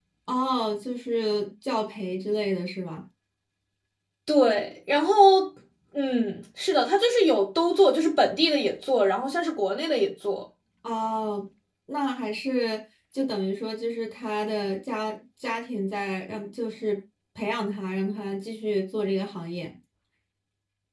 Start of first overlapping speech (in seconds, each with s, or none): none